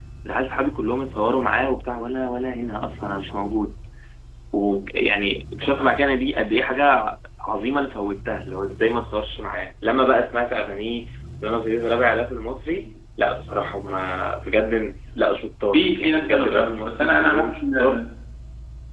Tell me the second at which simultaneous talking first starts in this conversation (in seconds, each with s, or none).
15.7 s